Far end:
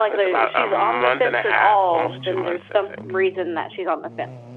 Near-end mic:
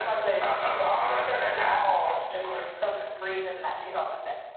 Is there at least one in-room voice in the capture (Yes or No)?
No